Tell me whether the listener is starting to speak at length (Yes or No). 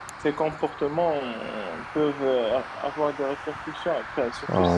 Yes